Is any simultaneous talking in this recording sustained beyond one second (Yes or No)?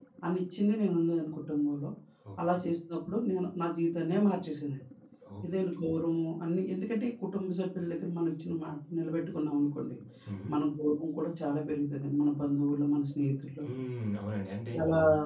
No